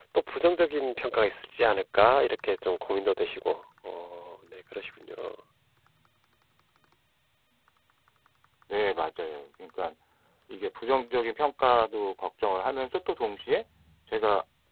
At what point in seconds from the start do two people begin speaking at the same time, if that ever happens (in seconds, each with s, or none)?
none